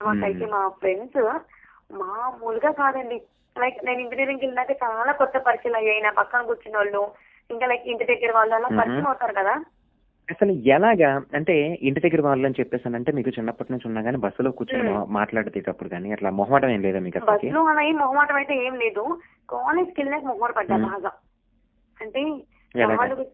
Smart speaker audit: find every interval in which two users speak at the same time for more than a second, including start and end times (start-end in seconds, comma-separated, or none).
none